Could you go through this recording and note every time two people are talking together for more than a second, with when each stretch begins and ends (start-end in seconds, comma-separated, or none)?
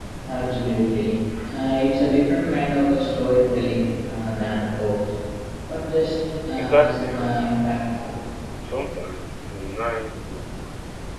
6.6-7.8